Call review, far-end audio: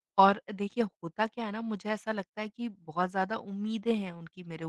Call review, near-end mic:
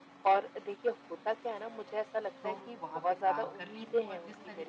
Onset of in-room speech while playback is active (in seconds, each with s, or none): 2.4 s